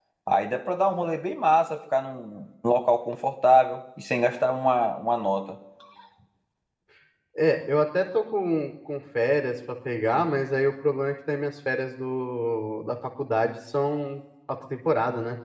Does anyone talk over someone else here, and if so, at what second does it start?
none

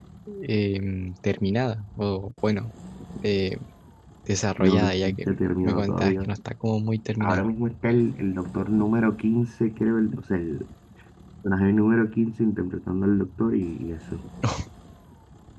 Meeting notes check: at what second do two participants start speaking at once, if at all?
4.6 s

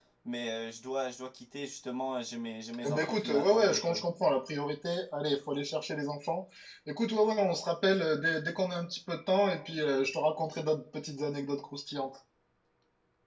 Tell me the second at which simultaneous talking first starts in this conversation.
2.8 s

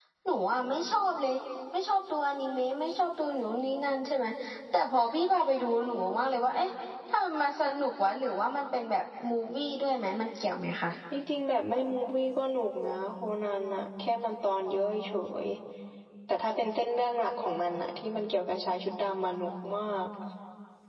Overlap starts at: none

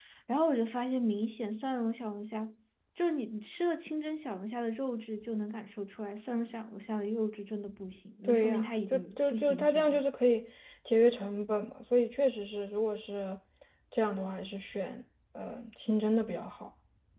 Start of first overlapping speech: 8.2 s

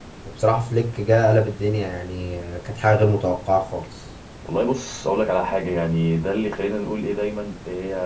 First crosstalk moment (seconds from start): none

